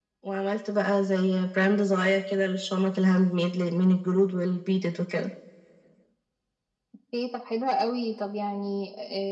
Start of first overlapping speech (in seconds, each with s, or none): none